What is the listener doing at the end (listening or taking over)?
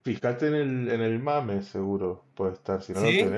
listening